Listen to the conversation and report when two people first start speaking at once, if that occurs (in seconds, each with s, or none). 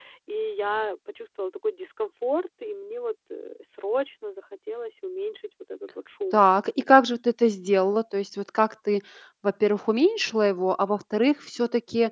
none